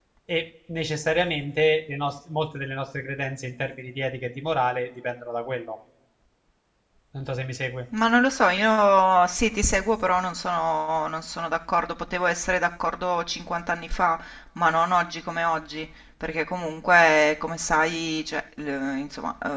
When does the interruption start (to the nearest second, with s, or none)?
none